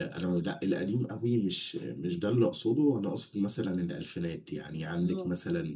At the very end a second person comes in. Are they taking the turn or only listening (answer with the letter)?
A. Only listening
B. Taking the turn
A